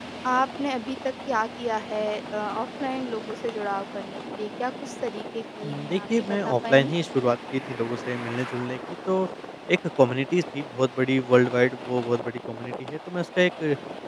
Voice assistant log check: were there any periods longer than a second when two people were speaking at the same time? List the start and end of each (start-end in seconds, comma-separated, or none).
5.6-7.0